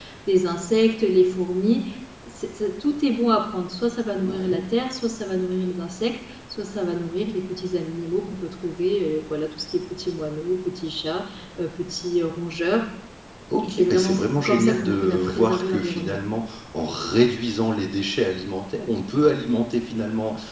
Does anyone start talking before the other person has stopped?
Yes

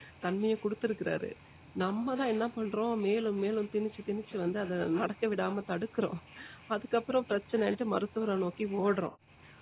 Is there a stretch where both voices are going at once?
No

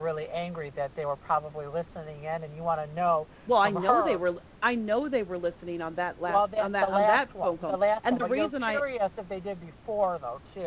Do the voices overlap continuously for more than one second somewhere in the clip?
Yes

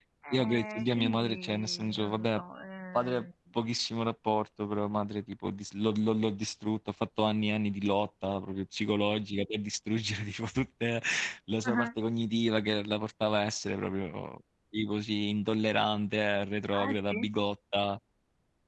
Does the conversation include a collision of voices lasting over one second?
Yes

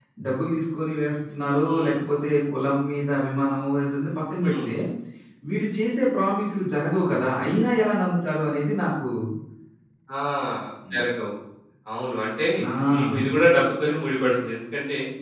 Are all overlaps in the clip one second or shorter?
Yes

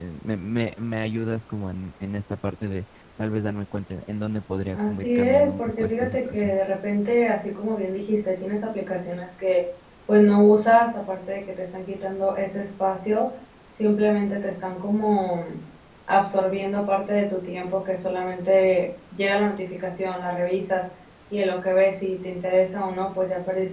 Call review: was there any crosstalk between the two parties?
Yes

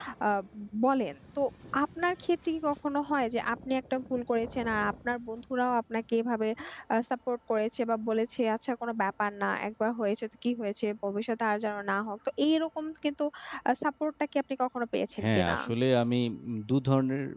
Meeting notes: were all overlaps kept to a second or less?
Yes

